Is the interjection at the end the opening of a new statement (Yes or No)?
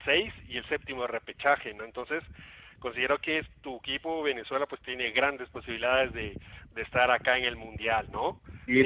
Yes